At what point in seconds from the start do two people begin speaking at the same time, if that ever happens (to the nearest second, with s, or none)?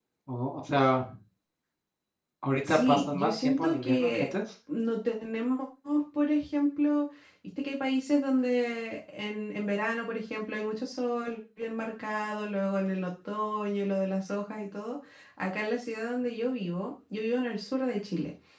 3 s